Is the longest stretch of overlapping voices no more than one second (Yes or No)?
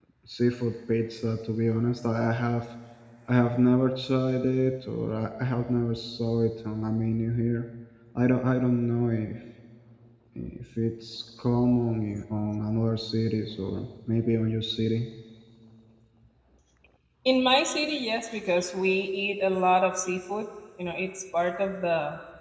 Yes